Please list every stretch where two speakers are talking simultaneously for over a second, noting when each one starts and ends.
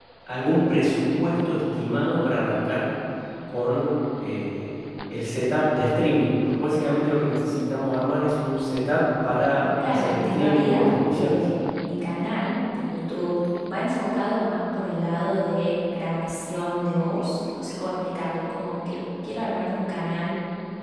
9.8-11.4

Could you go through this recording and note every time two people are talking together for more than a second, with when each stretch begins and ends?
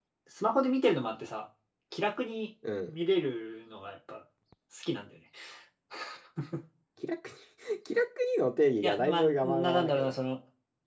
8.8-10.2

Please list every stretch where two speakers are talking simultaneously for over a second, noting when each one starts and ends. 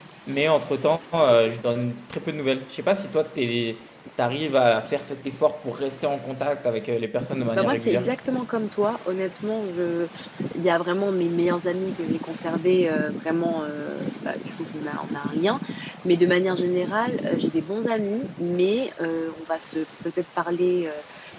none

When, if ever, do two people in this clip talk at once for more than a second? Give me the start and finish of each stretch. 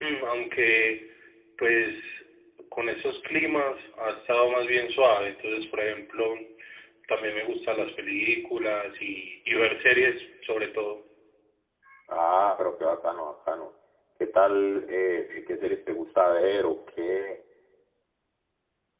none

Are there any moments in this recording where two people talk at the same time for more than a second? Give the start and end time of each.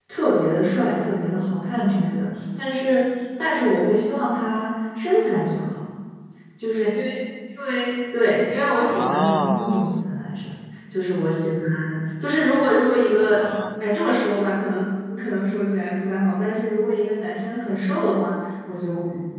8.8-10.0

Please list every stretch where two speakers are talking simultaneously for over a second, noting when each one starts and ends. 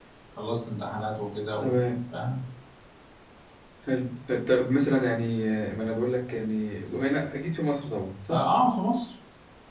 none

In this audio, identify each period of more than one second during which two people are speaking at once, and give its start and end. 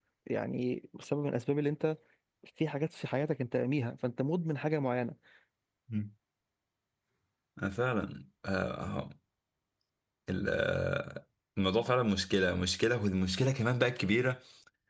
none

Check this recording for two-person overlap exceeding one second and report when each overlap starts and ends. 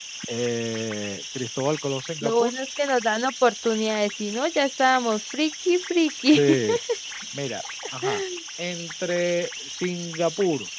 none

